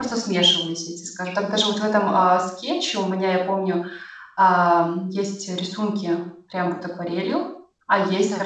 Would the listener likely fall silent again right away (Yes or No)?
Yes